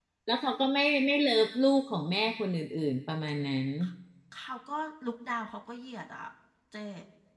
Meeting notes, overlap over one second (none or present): none